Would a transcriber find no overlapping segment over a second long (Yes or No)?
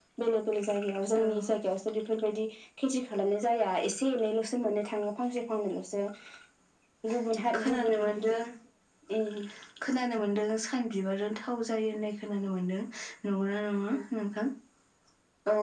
Yes